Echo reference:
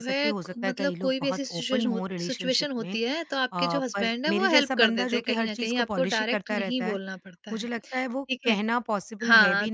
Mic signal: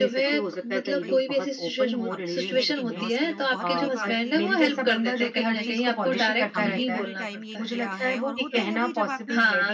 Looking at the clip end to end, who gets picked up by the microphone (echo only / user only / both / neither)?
both